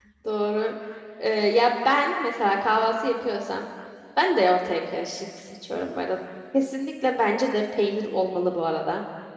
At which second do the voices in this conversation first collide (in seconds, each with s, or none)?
none